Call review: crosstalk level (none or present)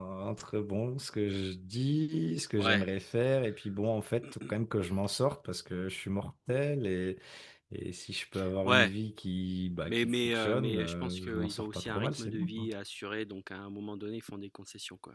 present